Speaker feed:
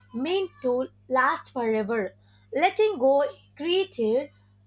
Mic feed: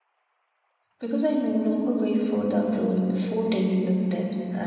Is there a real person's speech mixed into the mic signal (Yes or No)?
Yes